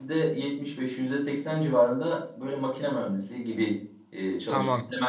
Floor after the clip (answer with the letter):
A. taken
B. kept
A